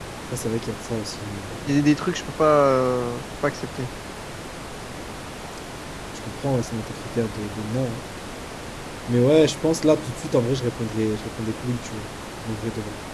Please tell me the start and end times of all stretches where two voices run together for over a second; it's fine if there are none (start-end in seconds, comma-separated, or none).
none